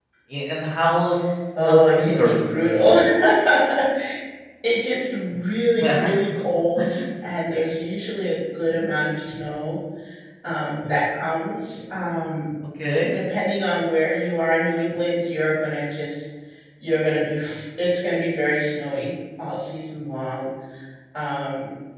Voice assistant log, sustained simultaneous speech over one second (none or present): present